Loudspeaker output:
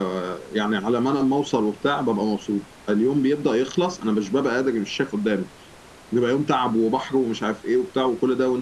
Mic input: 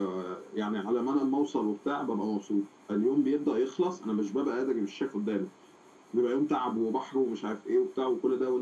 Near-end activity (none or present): none